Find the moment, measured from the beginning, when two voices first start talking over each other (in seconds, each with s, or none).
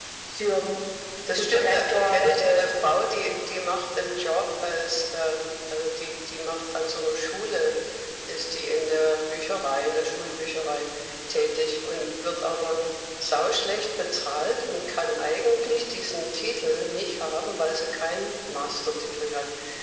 1.3 s